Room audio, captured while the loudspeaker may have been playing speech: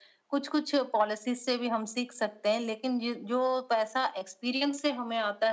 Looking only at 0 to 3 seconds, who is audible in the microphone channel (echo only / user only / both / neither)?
echo only